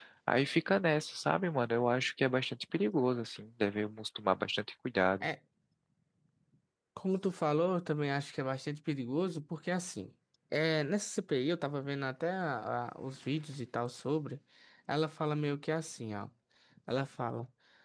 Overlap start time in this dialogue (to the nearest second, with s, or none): none